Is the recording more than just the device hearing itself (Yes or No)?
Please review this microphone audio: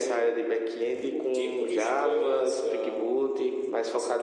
No